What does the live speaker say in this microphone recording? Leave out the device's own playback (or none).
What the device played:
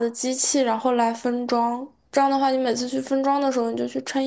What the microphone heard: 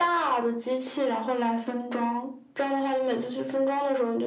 none